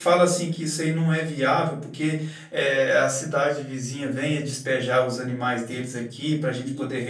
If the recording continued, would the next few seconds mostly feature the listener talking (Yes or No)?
No